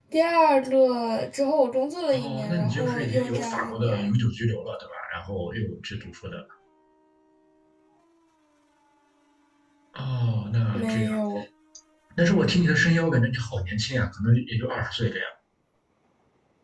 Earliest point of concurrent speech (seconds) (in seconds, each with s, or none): 2.1 s